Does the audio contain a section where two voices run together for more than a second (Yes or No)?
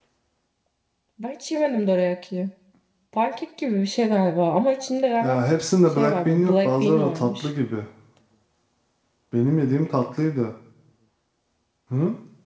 Yes